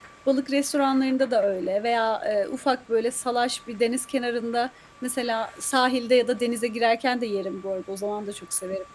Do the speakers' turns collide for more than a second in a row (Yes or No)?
No